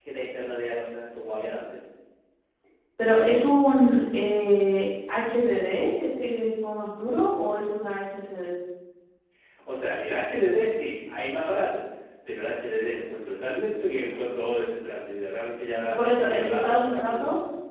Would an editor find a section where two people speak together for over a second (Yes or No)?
Yes